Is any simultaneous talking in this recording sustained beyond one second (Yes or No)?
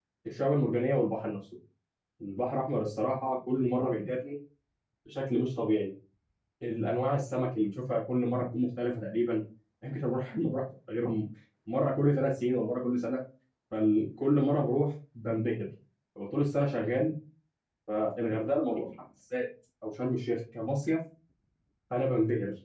No